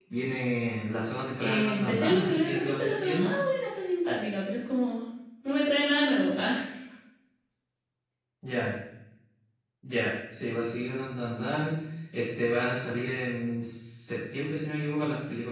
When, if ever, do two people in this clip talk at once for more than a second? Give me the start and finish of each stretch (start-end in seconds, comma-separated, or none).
1.4-3.3